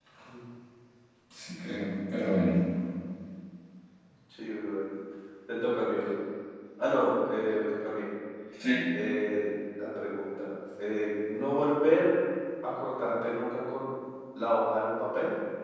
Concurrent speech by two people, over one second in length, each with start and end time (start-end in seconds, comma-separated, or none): none